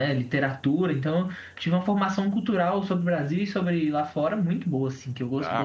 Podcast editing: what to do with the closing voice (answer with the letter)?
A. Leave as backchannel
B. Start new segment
B